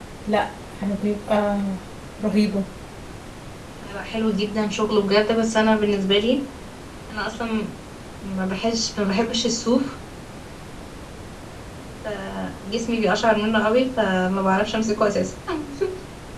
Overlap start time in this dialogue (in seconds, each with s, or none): none